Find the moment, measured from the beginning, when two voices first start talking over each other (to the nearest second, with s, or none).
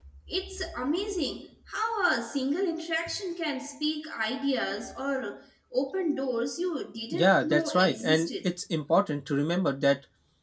7 s